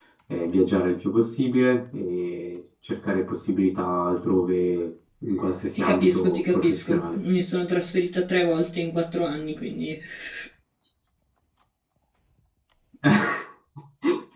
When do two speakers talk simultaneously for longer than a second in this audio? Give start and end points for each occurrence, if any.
5.7-7.2

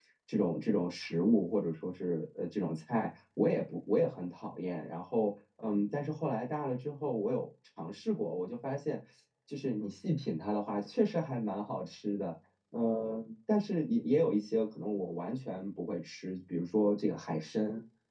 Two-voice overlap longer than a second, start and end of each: none

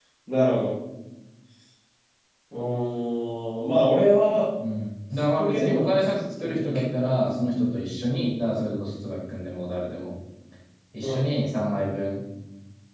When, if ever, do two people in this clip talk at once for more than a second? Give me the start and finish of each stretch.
5.1-7.5

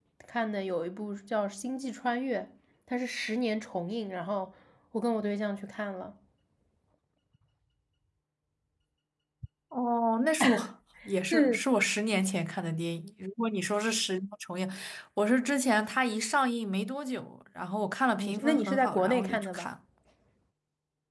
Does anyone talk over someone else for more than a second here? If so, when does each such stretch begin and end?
18.1-19.7

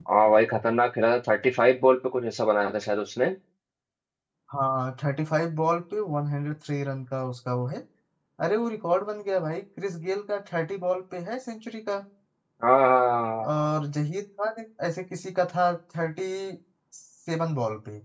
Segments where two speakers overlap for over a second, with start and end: none

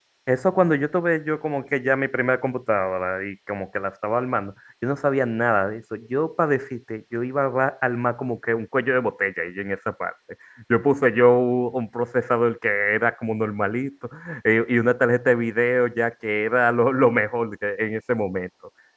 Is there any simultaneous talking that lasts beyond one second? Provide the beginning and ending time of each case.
none

